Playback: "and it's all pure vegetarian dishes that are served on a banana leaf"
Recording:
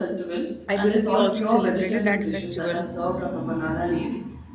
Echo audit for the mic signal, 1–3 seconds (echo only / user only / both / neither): both